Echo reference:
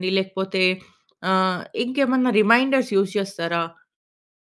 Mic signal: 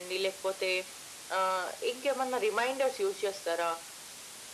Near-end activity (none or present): none